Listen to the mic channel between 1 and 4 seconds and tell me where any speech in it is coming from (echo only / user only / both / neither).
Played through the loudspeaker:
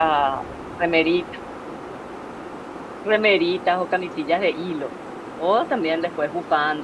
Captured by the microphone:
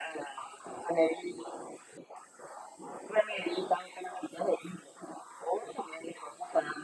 echo only